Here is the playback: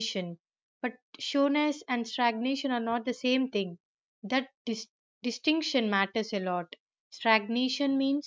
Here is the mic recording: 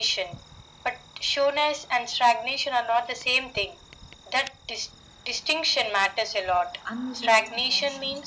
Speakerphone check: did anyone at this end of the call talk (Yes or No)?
Yes